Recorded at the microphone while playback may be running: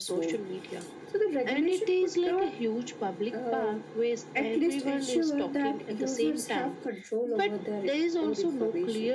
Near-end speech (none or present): none